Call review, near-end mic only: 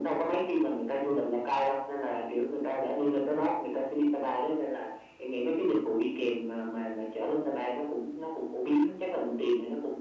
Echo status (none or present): present